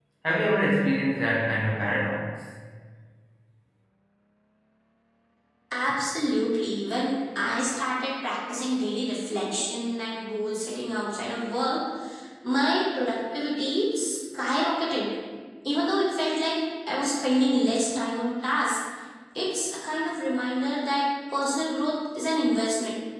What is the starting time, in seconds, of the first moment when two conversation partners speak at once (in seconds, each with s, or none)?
none